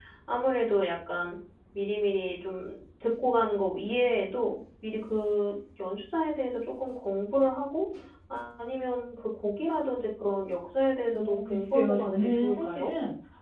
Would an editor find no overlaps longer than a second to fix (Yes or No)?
No